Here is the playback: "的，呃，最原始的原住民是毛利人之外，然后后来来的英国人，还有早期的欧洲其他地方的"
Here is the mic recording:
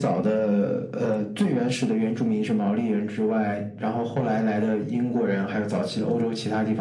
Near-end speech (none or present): none